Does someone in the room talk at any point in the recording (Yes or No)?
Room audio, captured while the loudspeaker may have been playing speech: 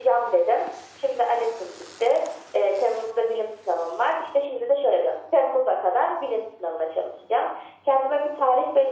No